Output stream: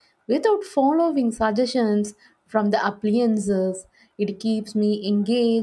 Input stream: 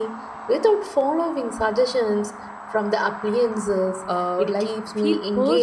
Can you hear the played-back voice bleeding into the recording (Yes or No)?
Yes